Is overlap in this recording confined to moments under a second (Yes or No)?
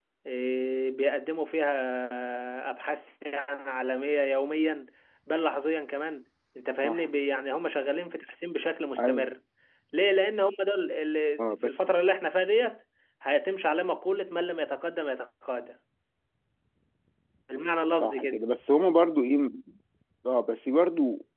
Yes